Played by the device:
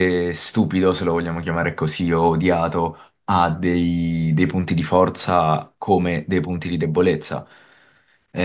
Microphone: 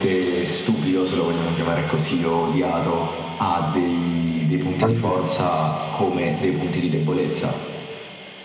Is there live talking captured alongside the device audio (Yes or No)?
Yes